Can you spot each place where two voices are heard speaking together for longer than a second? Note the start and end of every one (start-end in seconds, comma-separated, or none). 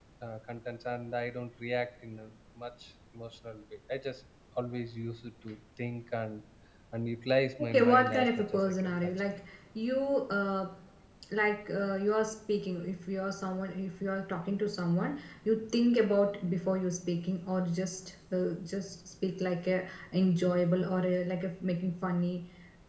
7.6-9.1